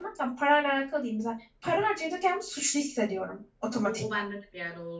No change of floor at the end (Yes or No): No